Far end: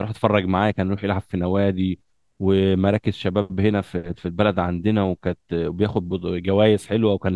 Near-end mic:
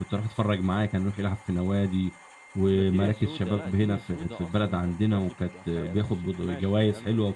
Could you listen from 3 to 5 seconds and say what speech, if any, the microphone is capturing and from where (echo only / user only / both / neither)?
both